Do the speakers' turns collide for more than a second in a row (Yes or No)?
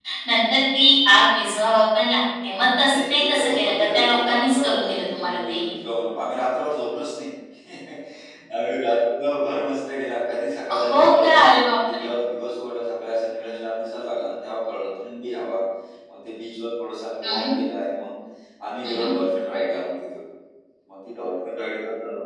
Yes